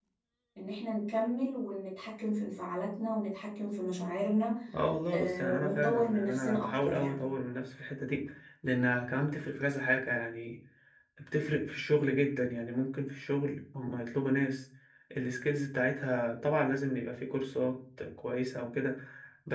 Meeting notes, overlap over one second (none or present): present